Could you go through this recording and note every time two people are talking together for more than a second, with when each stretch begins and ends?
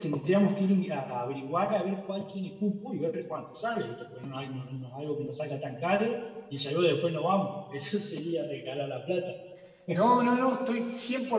none

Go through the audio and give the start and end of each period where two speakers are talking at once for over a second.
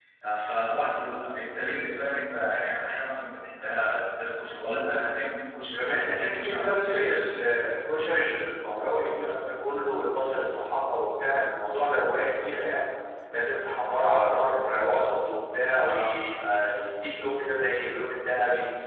5.7-7.1

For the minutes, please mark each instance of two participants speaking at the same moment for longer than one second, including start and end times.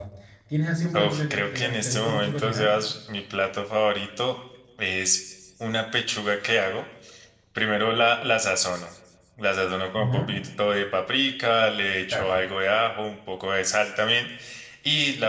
0.9-2.7

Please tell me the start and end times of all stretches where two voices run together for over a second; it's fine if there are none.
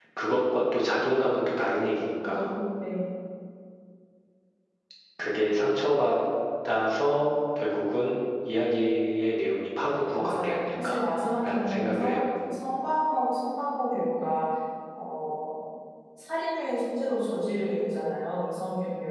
10.1-12.2

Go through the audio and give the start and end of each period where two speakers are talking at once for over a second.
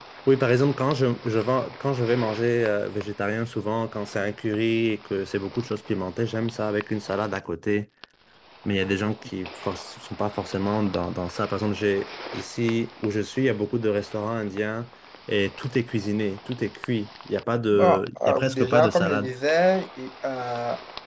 17.7-19.3

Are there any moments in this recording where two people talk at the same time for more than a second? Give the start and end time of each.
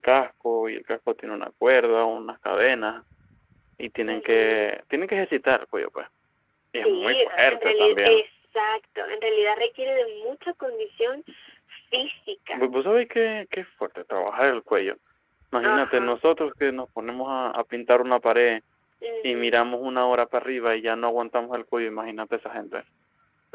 6.8-8.2

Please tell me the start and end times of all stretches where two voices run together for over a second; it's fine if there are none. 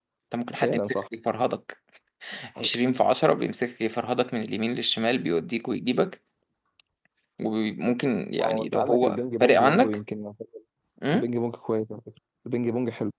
8.4-10.0

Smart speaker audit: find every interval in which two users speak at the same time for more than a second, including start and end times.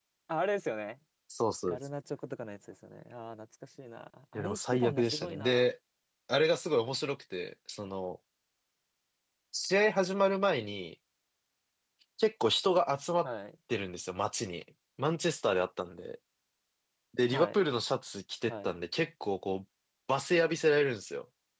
4.3-5.7

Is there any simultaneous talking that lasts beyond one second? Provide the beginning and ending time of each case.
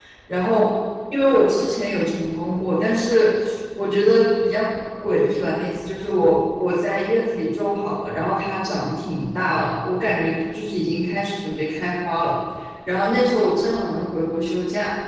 none

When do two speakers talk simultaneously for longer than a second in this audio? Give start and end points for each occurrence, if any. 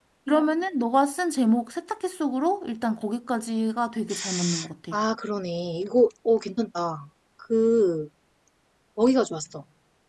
none

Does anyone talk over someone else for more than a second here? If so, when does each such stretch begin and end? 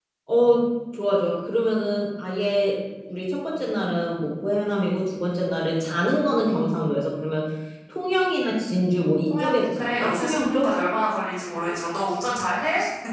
9.4-10.7

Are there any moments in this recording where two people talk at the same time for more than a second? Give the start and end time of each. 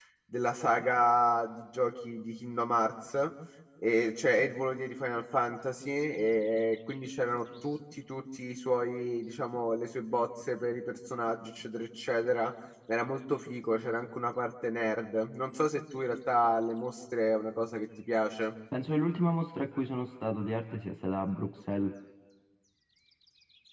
none

